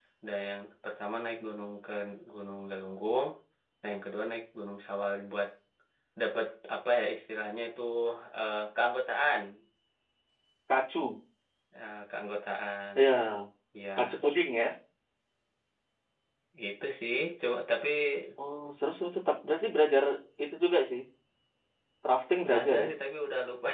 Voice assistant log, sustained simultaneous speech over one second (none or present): none